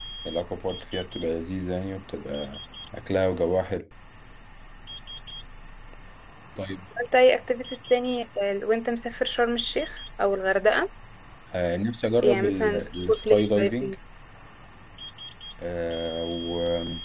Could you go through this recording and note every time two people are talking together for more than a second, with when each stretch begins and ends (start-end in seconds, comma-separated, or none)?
12.2-13.9